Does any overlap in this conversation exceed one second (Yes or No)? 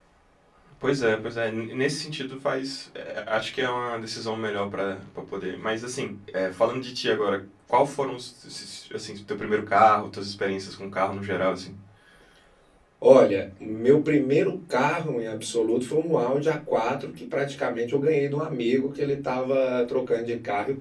No